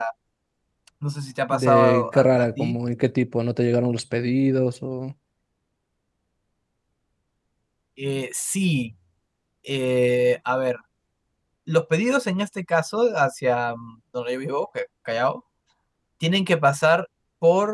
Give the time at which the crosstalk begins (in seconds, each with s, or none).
1.5 s